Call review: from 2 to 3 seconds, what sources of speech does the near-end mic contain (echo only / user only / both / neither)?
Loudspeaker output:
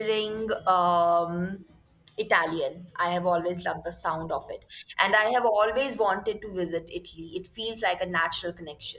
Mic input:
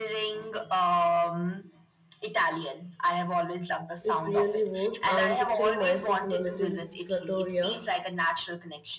echo only